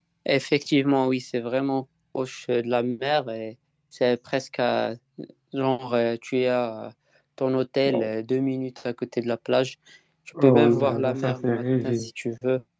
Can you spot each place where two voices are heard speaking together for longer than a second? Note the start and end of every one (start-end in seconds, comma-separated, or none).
10.4-12.1